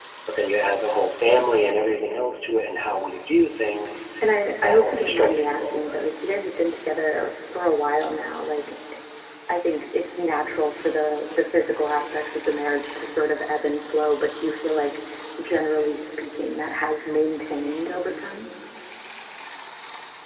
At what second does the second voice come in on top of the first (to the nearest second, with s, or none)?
5 s